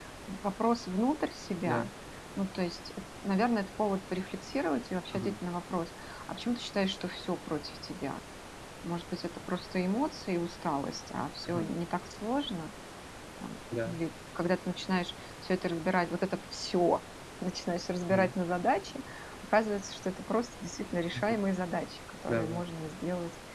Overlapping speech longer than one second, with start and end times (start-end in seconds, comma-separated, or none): none